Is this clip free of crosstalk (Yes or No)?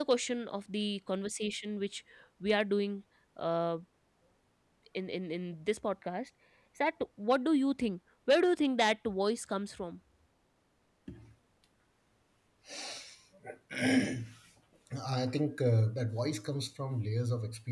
Yes